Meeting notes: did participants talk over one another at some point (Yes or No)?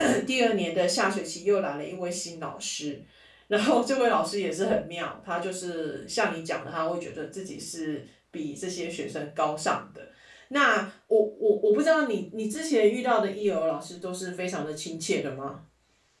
No